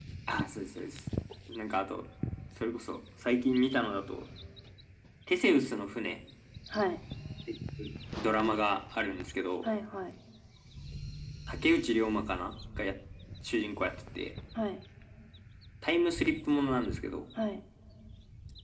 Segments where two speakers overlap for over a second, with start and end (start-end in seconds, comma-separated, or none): none